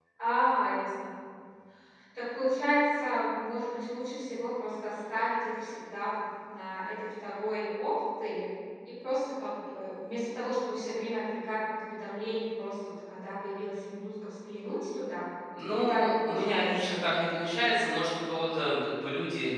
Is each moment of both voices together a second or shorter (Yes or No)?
No